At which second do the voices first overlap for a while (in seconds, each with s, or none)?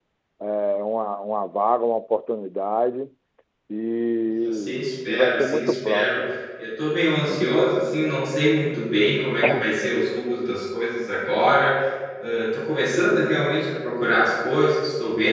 4.4 s